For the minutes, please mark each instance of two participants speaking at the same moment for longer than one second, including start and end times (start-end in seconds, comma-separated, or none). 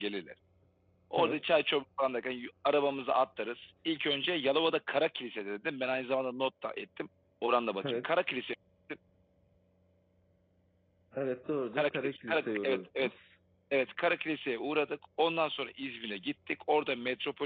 11.7-13.1